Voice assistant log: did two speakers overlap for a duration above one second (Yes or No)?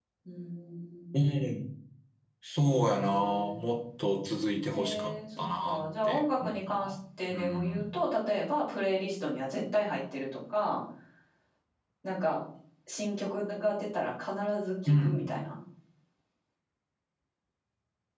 Yes